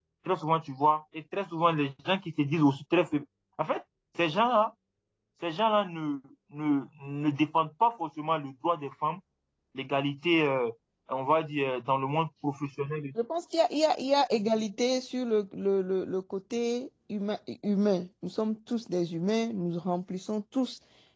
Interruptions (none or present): none